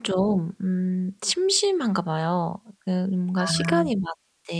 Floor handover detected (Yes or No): No